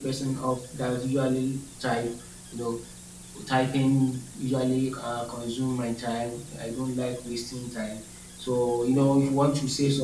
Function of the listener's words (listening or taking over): listening